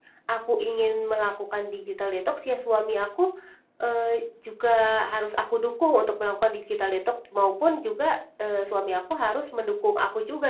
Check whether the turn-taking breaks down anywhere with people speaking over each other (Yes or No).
No